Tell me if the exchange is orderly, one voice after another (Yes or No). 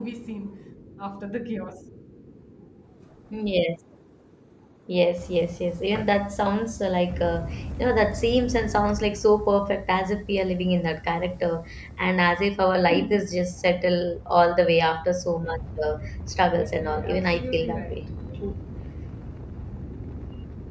No